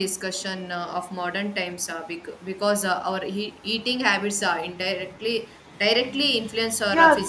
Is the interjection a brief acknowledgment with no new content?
No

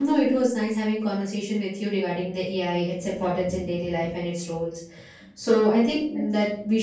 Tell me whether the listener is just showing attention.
Yes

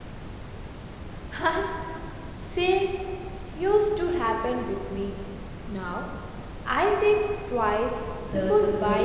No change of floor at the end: No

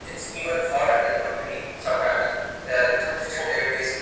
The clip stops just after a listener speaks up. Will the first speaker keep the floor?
Yes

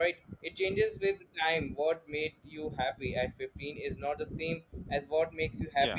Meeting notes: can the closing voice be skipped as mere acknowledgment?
No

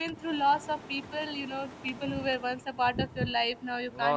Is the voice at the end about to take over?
Yes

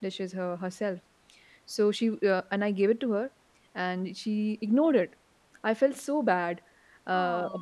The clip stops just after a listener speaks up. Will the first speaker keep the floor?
Yes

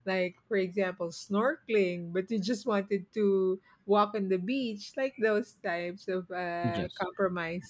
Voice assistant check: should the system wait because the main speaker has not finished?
Yes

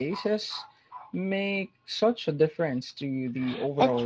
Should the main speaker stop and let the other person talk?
Yes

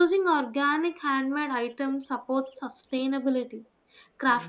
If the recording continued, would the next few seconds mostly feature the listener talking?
No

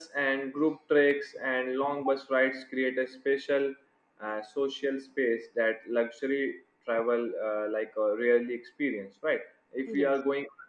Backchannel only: Yes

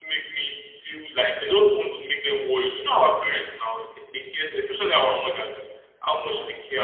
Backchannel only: Yes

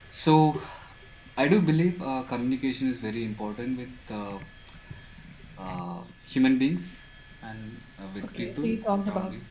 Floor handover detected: Yes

